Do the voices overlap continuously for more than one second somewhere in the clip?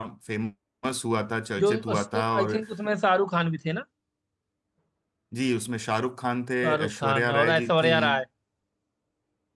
Yes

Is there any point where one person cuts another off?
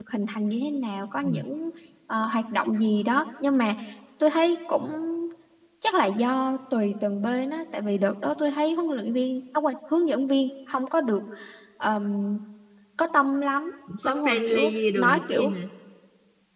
Yes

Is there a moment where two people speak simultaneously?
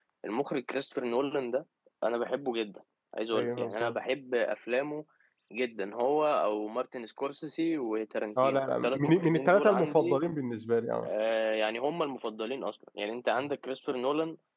Yes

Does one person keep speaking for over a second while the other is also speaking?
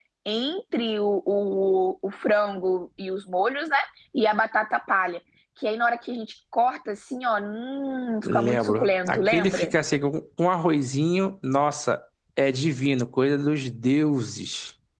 Yes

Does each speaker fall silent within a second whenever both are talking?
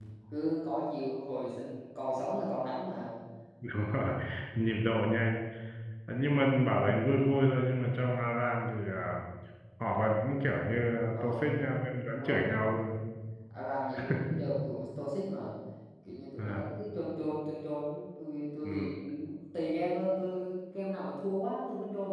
Yes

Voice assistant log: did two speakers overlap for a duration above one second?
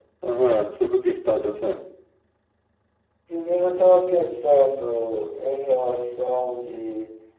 No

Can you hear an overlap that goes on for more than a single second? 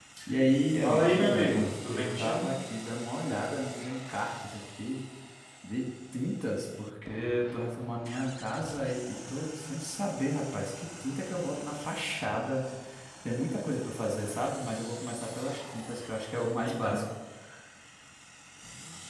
Yes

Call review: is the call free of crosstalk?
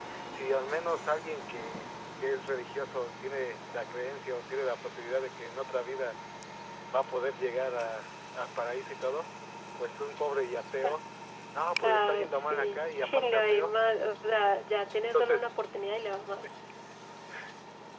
No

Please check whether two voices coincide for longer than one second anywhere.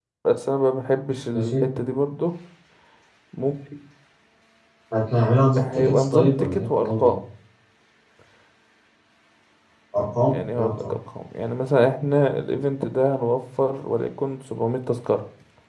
Yes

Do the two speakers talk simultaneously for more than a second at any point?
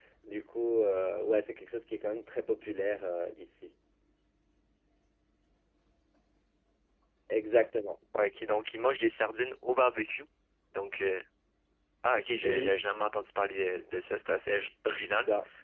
No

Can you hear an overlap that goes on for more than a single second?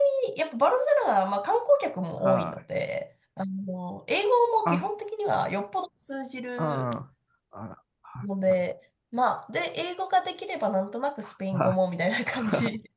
No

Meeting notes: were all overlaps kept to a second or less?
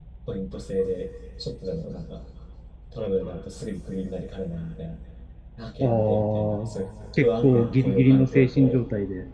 No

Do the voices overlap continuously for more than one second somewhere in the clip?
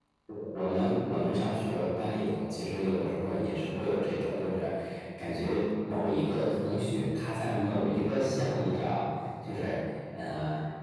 No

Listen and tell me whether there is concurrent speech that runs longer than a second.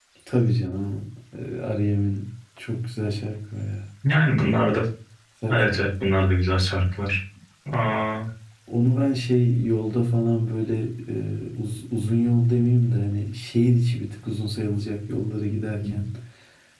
No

